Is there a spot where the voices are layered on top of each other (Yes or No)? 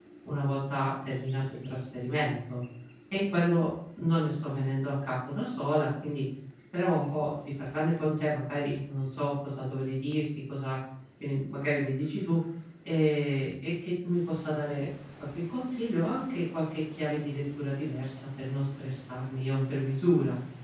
No